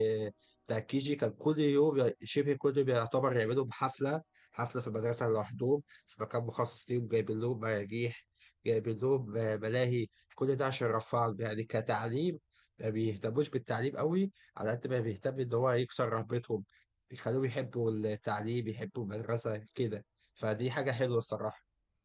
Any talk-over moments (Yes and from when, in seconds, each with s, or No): No